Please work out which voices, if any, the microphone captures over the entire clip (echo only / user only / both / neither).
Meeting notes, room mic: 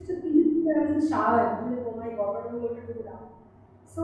user only